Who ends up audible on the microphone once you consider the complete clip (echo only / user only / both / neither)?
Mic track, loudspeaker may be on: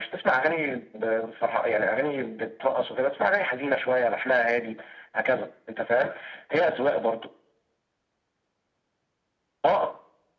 echo only